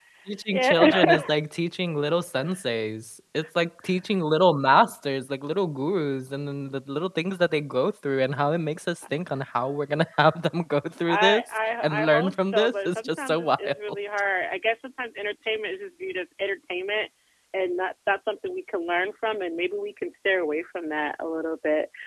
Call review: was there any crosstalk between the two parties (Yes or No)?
Yes